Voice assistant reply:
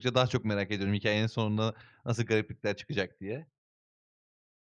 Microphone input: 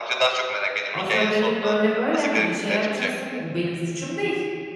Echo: present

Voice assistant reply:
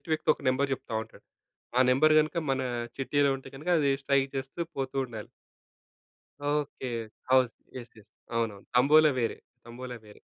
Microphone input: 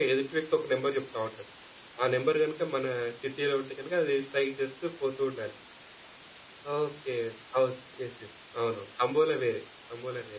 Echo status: present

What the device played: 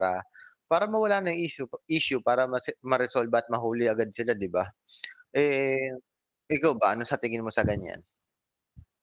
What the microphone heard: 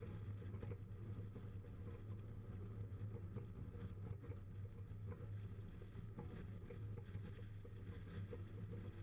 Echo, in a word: none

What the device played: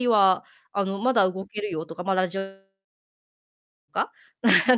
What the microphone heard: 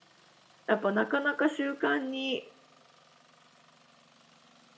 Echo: none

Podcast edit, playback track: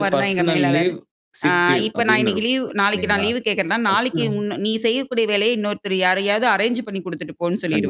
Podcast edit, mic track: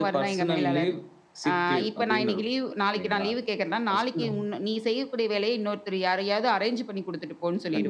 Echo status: present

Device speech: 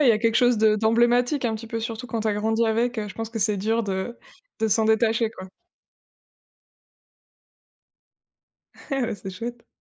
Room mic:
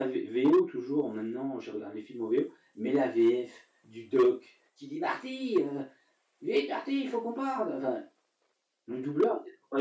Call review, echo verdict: none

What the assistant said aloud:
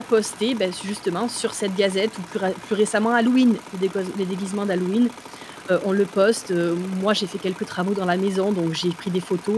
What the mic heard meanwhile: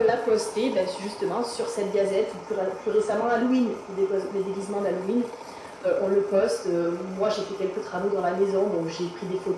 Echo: present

